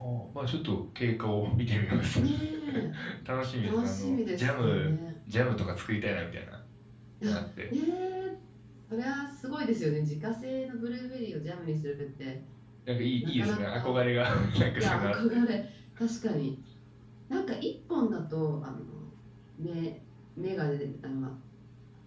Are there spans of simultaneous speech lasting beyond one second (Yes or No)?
Yes